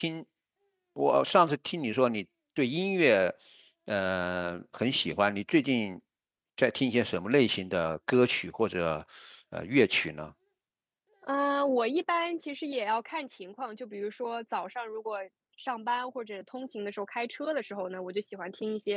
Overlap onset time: none

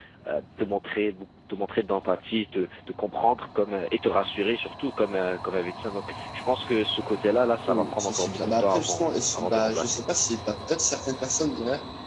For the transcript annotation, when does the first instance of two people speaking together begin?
7.7 s

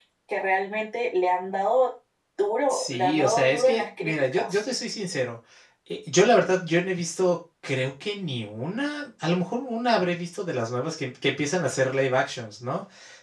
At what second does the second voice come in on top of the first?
2.7 s

